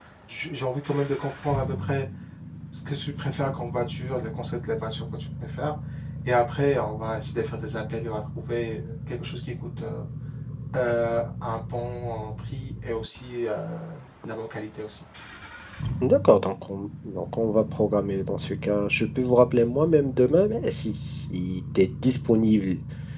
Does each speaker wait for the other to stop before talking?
Yes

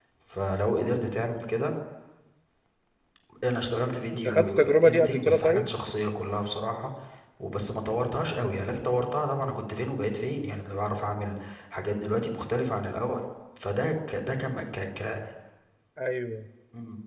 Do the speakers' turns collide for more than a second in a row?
Yes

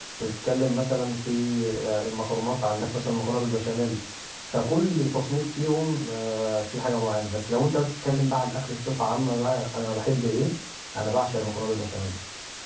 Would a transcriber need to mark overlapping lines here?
No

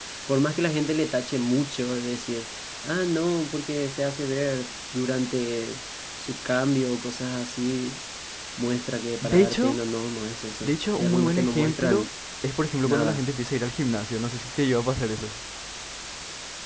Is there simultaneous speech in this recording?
Yes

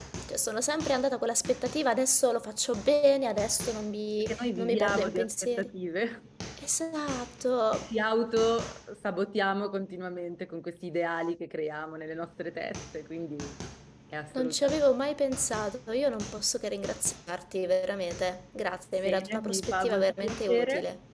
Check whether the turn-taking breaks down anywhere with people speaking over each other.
Yes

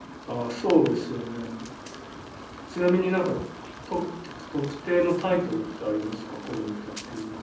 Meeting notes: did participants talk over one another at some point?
No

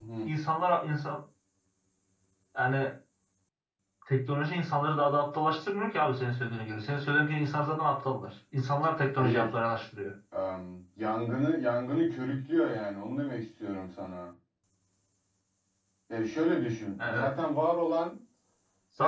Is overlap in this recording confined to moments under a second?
Yes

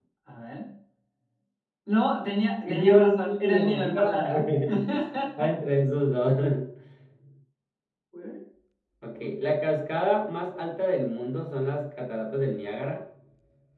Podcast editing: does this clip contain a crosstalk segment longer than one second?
Yes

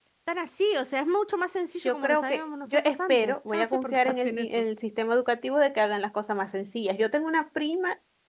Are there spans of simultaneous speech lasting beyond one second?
Yes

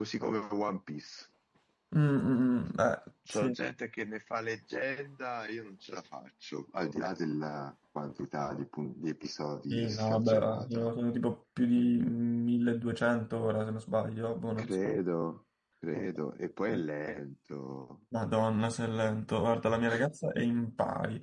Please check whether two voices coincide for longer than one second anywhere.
Yes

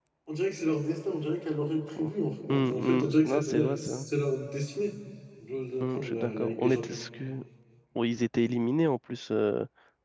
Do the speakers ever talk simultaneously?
Yes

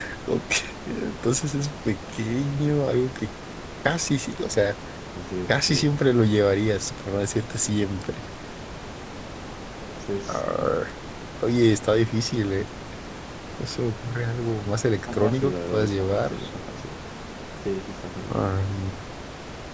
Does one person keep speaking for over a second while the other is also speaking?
Yes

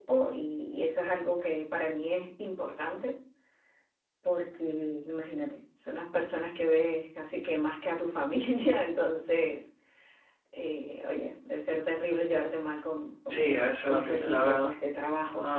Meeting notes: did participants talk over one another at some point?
Yes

